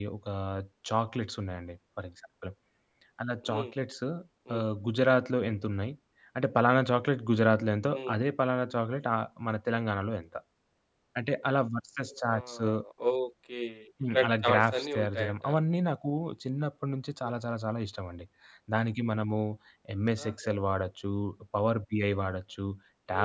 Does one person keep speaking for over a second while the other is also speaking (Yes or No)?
Yes